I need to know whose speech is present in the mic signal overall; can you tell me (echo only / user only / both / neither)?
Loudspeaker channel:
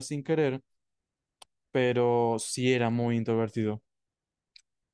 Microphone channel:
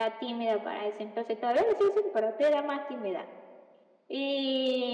user only